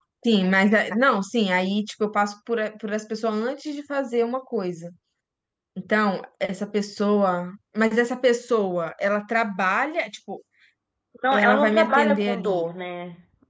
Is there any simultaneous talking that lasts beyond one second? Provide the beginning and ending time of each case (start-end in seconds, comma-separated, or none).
11.3-12.6